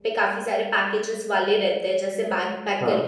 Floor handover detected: No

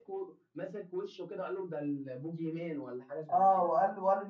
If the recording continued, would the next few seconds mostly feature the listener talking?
Yes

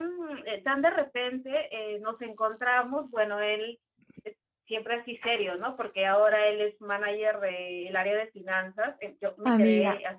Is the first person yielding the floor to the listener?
Yes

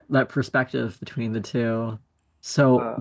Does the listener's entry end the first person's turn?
No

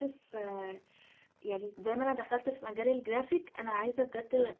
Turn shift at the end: No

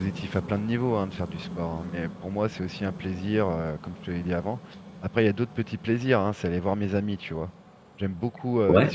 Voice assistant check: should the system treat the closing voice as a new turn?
No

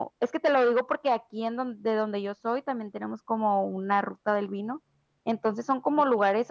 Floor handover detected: No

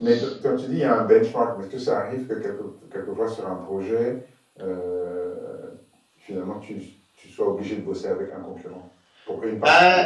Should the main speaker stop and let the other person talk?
Yes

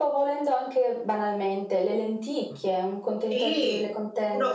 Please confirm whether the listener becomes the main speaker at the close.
Yes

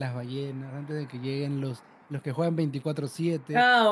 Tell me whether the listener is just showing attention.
No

